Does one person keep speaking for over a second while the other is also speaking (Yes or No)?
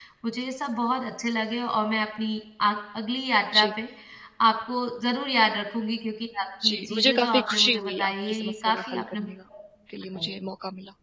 Yes